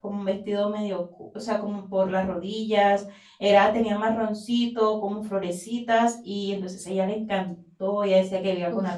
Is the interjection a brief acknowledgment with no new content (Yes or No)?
Yes